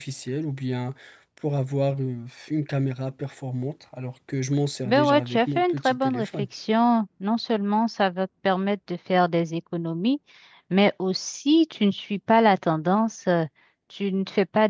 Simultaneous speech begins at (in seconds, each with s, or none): 4.8 s